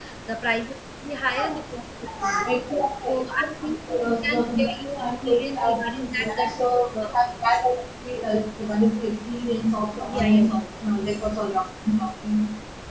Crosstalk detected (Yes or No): Yes